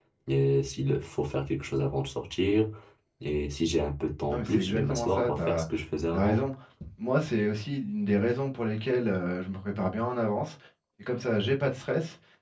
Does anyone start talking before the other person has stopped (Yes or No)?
Yes